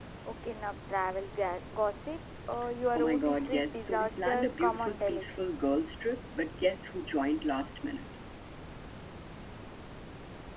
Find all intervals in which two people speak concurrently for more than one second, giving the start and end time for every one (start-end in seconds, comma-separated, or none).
3.0-5.2